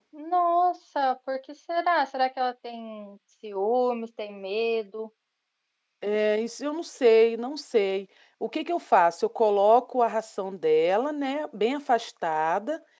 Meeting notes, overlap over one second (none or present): none